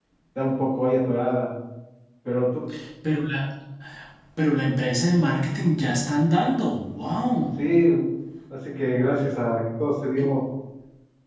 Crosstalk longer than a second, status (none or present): none